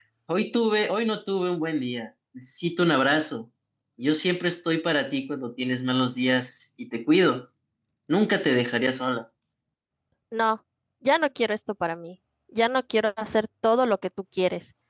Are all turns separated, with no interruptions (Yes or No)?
Yes